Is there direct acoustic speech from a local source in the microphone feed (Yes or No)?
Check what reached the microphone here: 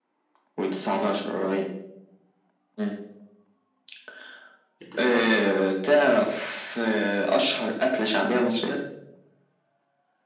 Yes